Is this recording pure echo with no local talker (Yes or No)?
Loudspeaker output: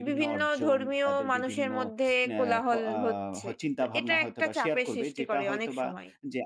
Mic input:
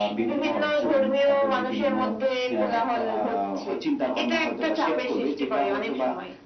Yes